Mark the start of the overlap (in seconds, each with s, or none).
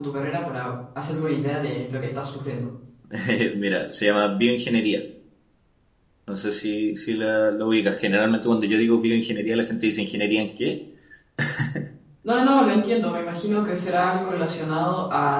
none